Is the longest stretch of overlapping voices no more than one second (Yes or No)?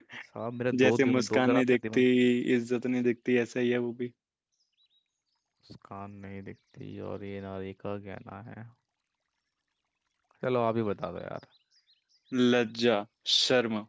No